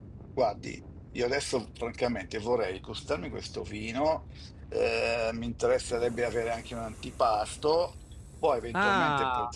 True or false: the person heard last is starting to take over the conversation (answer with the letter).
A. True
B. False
A